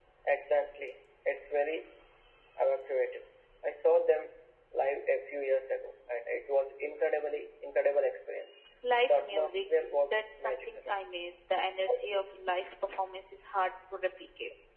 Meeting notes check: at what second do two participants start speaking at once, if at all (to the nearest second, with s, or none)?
9 s